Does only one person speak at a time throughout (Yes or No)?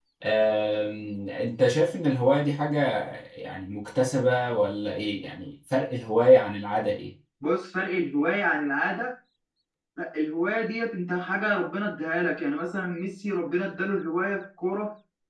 Yes